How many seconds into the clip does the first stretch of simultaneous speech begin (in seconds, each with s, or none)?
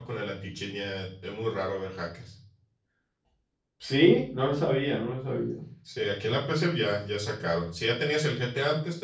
none